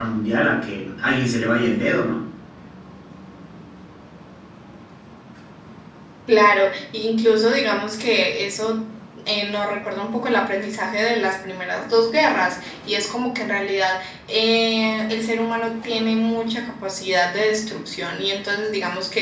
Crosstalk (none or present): none